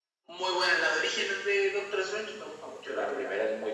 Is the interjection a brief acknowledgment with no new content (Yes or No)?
No